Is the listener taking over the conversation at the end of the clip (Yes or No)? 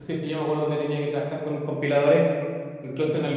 No